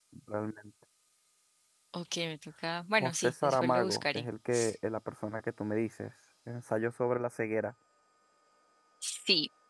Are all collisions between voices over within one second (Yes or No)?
No